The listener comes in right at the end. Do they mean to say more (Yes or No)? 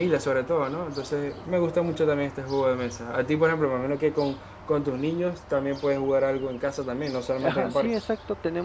Yes